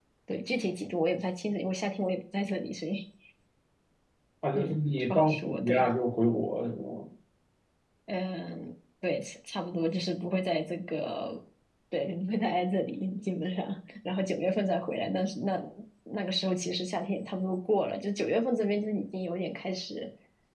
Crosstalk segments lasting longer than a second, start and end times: 4.5-5.9

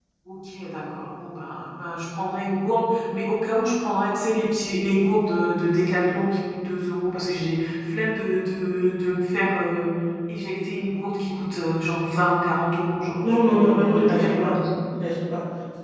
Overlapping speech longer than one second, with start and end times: 13.3-14.6

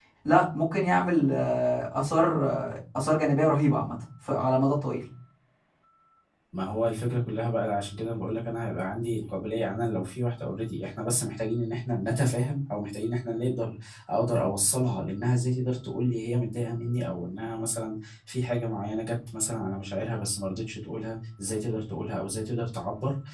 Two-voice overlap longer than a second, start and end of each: none

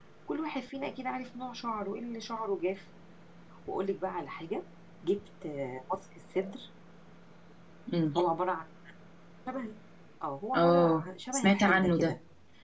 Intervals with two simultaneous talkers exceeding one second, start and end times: 10.6-12.1

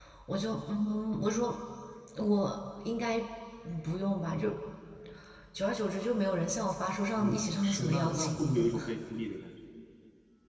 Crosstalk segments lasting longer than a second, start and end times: 7.2-8.8

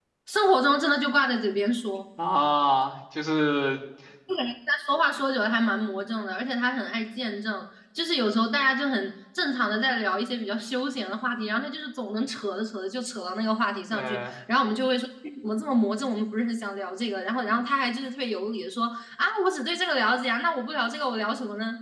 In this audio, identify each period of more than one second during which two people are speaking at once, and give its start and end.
none

